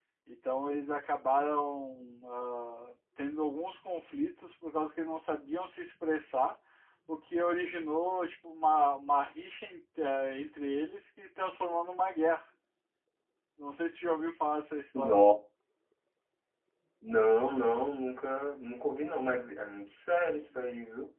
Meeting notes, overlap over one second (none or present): none